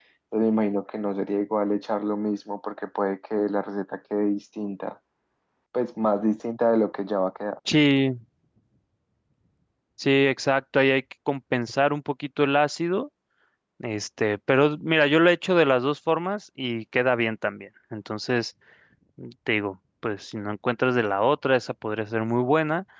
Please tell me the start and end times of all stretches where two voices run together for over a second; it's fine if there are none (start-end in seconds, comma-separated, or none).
none